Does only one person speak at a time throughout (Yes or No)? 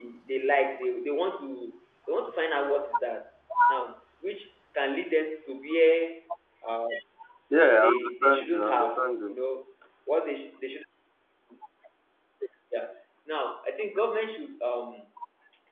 No